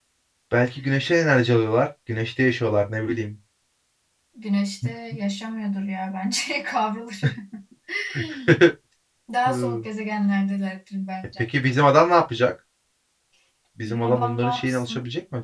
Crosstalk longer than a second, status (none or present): present